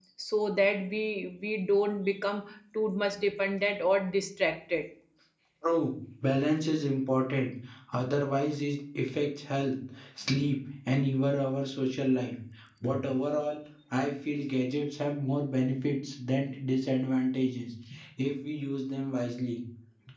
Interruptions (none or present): none